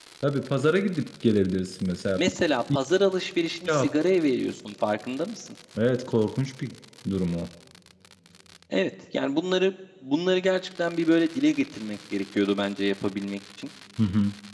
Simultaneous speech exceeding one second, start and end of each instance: none

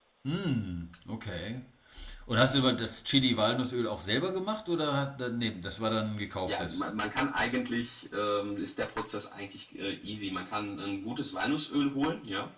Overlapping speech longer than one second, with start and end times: none

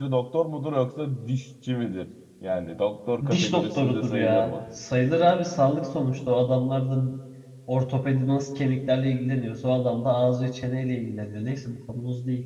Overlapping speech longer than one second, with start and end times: 3.3-4.5

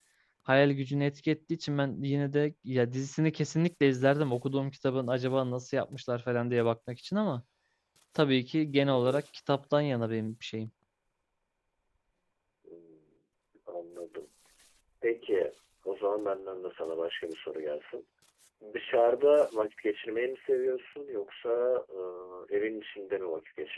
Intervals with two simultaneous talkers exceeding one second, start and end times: none

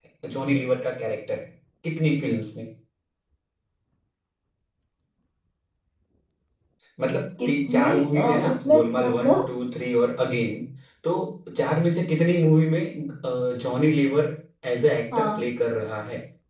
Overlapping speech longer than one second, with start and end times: 7.4-9.4

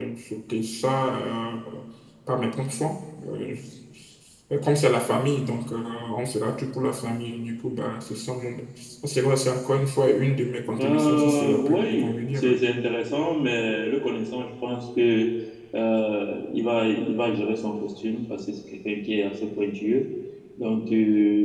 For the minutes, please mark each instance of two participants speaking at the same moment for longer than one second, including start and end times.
10.8-12.5

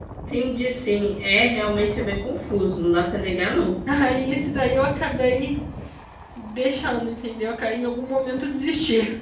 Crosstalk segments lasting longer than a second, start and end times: none

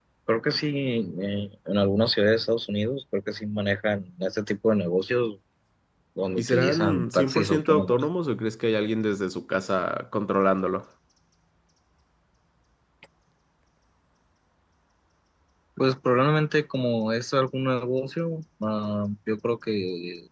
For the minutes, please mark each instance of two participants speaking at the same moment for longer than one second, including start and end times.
6.4-8.0

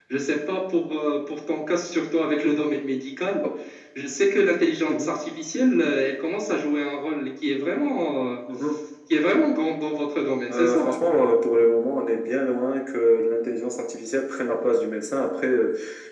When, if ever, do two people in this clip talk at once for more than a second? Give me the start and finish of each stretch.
none

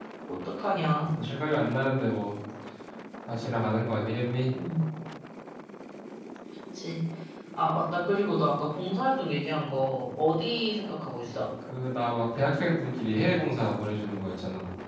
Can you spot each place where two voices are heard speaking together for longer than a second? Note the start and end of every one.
none

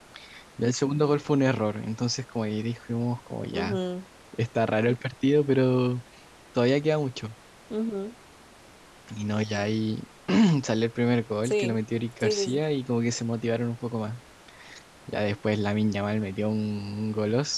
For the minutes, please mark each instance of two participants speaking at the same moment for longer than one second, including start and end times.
none

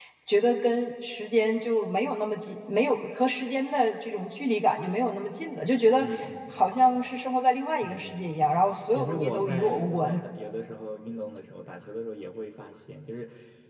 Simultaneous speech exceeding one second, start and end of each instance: 7.8-10.2

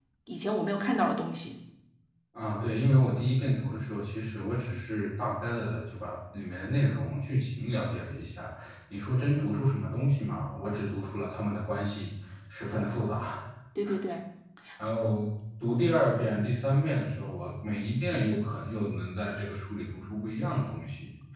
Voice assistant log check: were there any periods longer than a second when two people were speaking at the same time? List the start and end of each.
none

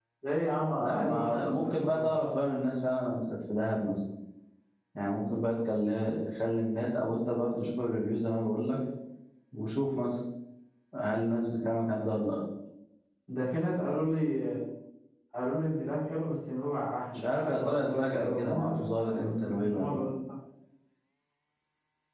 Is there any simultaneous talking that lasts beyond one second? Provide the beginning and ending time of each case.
0.8-2.2, 17.1-20.0

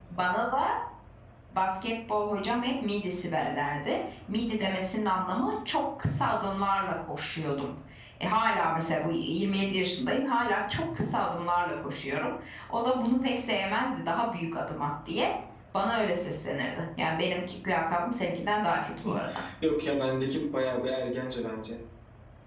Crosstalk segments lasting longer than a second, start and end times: none

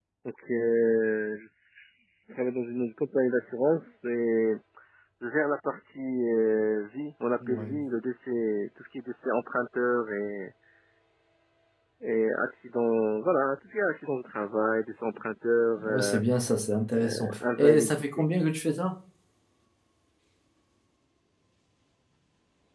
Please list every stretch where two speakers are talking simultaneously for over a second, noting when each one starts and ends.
17.0-18.2

